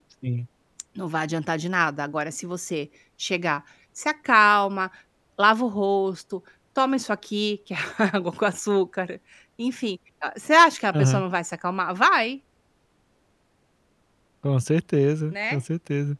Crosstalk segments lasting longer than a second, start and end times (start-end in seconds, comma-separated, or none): none